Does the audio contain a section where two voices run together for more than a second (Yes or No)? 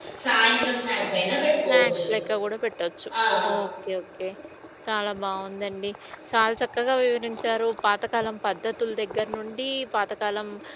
No